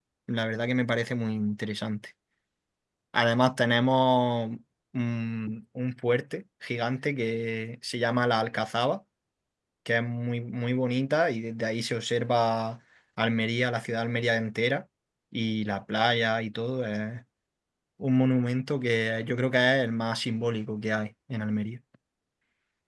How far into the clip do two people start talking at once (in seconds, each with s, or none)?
none